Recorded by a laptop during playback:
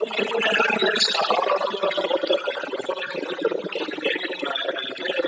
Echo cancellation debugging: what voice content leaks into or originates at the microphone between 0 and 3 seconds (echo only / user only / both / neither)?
echo only